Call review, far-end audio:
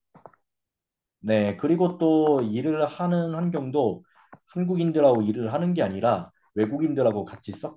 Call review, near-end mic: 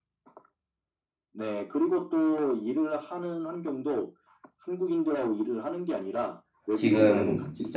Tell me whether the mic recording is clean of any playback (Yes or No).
No